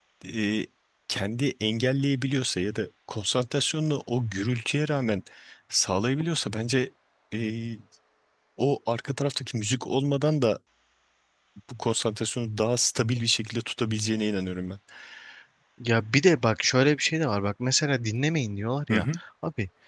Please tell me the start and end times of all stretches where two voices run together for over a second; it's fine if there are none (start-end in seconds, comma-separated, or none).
none